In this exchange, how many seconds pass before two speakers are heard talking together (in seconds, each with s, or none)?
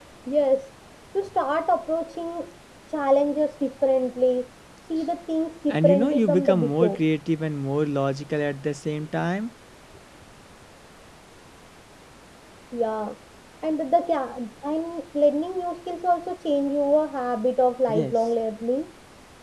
5.7 s